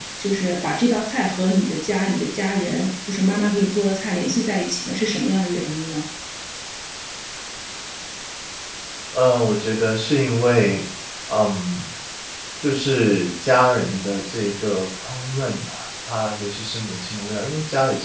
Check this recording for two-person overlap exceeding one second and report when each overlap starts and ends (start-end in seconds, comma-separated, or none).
none